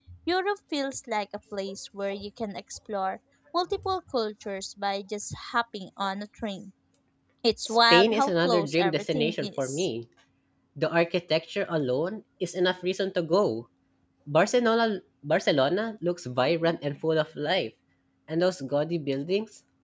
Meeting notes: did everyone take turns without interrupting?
No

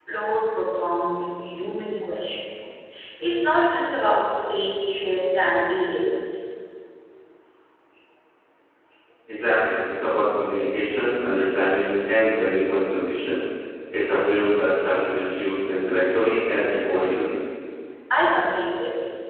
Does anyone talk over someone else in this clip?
No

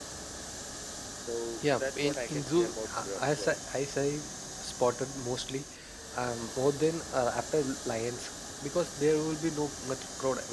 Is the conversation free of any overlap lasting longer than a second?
No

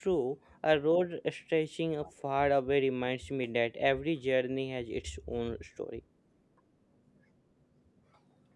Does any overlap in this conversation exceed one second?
No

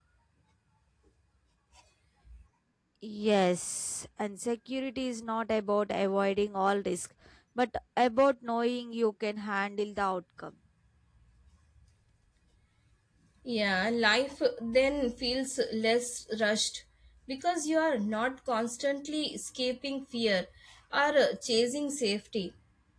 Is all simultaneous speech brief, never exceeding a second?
Yes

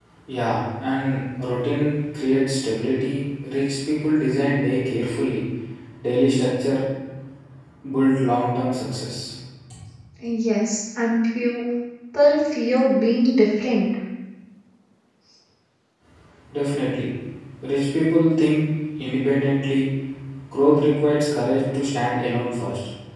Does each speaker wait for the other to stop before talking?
Yes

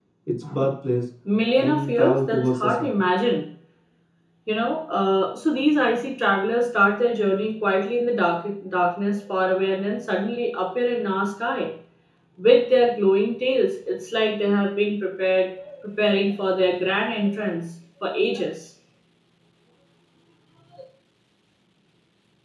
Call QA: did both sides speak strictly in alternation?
No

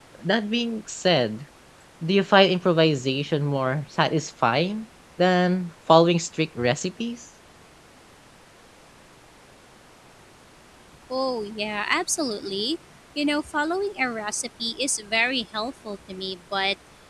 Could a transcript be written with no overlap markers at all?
Yes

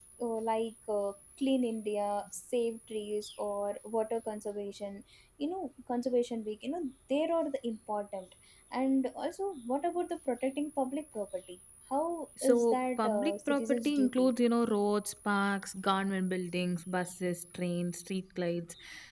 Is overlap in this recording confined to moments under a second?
No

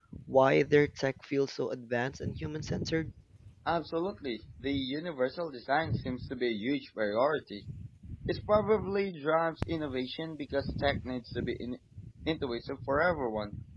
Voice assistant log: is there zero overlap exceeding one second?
Yes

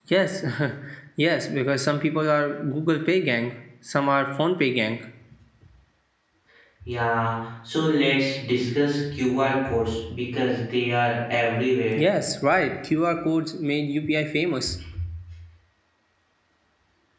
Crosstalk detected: No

